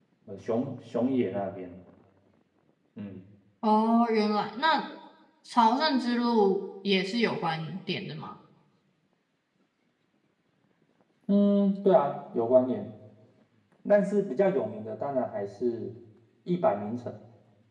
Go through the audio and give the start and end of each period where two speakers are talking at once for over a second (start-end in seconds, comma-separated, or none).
none